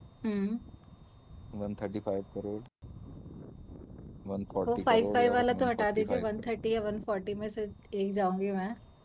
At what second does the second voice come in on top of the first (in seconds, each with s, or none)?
4.7 s